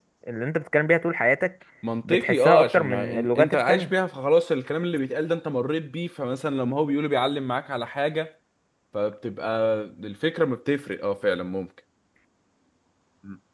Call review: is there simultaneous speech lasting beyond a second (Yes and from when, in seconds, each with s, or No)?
Yes, from 2.1 s